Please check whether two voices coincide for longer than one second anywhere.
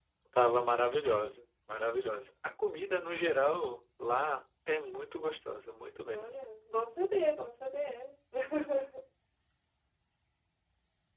No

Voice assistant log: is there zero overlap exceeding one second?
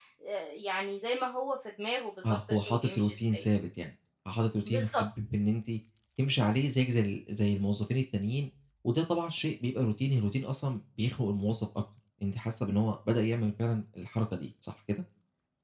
No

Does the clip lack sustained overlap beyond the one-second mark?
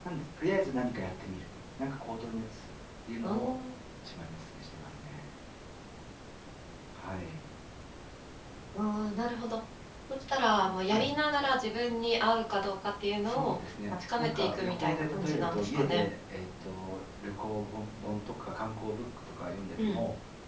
No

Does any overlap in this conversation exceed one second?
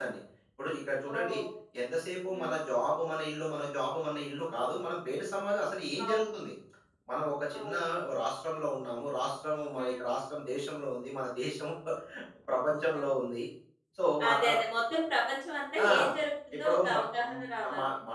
Yes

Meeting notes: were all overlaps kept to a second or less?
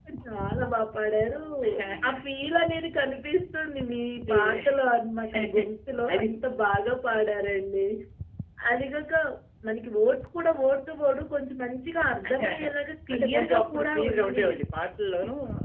No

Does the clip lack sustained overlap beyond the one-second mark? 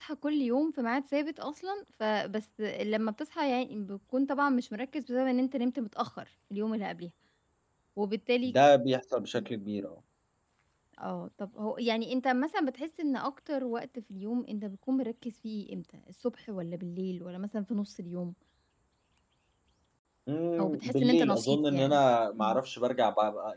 No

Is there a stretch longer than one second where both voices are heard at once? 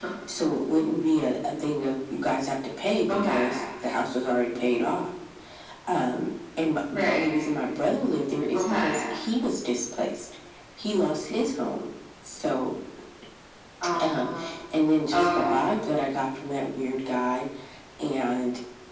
No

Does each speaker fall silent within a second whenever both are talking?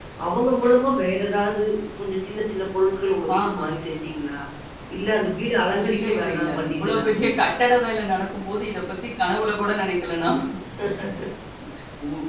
No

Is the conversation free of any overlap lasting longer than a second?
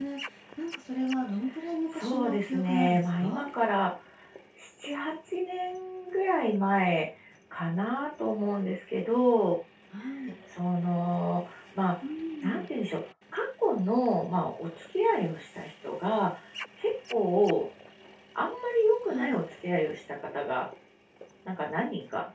No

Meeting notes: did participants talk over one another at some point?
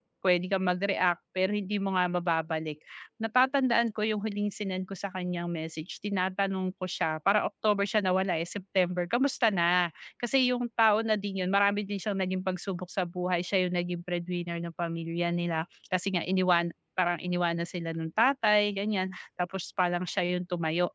No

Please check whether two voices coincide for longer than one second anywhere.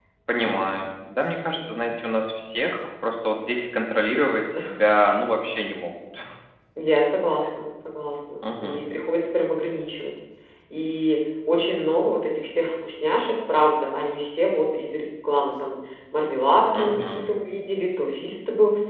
No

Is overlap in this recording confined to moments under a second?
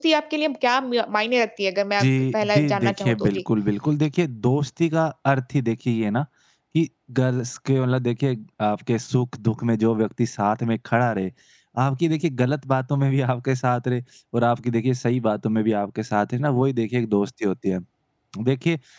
No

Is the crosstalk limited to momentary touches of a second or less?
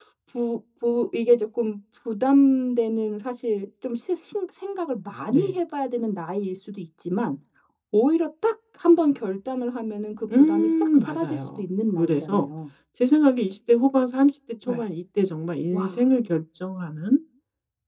No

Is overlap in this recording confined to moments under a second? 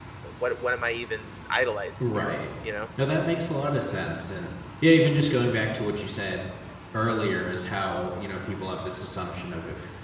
Yes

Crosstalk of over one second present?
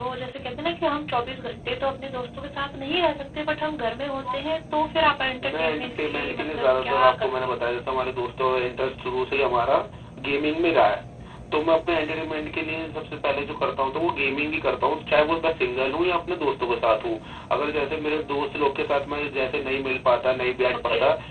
Yes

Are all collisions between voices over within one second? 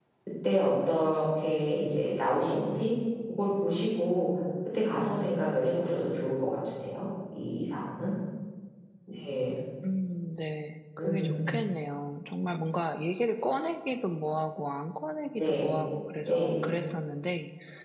Yes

